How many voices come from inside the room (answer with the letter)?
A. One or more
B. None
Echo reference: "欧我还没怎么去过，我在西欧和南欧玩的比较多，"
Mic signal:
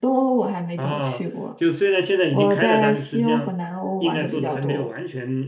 A